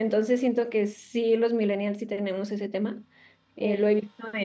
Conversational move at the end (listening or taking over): listening